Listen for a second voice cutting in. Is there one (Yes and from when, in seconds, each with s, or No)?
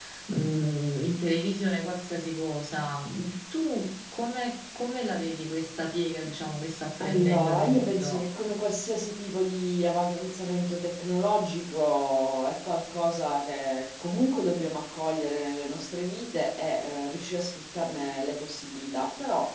Yes, from 7.0 s